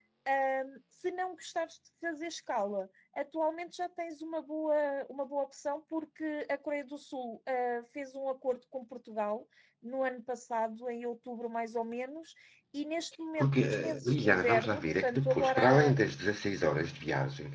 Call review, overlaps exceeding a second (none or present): present